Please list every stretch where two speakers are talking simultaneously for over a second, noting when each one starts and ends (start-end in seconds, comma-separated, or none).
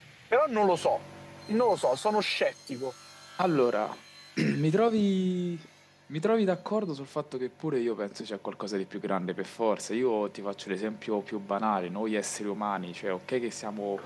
none